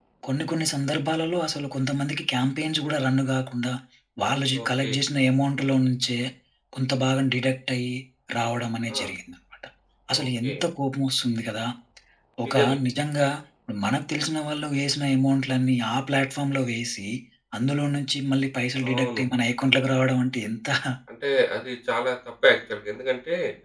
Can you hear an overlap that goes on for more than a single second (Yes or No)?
No